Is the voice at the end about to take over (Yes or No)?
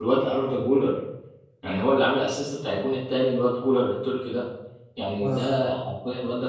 No